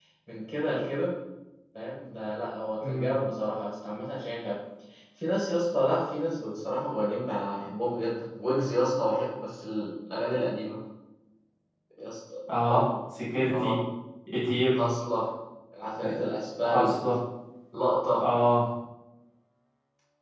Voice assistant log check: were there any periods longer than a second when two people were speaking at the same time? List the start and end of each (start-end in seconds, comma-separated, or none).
none